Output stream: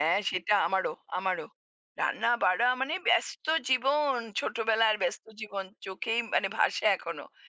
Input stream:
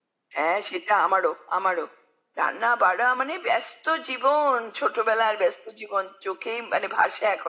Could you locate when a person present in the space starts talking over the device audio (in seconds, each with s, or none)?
none